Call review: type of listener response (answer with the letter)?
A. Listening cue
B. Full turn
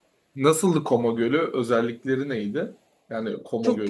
B